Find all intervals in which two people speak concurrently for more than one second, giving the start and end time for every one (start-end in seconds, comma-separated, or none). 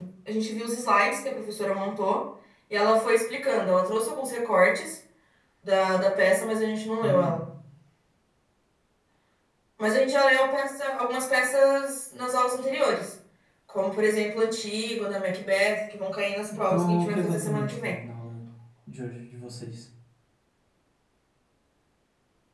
16.7-17.9